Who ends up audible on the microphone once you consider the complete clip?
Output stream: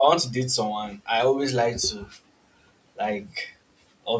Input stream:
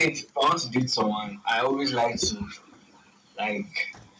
echo only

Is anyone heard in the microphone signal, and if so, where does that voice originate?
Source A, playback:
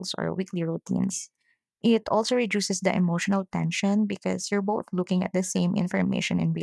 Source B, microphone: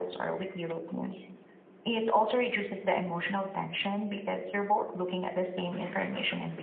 echo only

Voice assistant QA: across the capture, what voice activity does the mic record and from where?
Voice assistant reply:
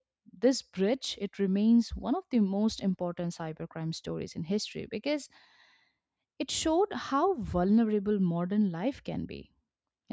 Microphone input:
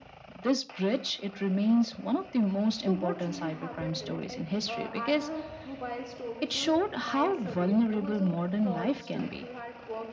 both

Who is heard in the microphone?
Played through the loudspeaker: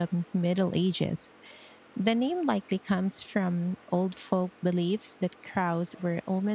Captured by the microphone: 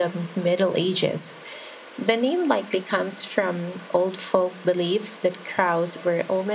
echo only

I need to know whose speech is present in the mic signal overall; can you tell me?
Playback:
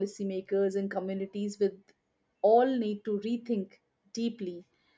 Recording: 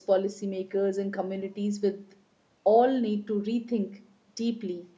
echo only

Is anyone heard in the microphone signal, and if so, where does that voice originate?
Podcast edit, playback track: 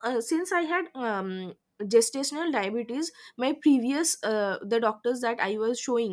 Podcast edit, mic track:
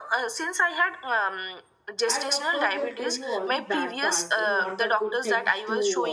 both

